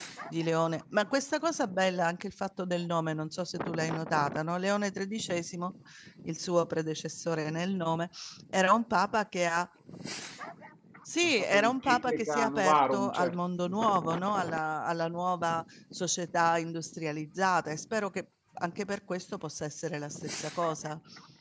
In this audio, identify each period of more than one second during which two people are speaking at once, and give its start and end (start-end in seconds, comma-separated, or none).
11.2-13.3